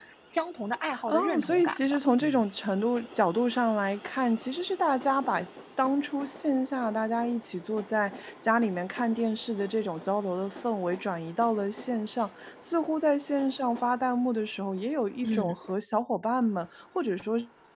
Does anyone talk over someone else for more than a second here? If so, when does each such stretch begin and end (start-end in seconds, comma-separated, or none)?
1.1-2.4